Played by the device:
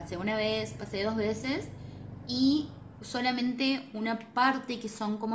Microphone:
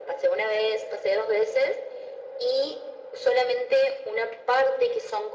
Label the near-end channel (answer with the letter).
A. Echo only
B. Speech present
A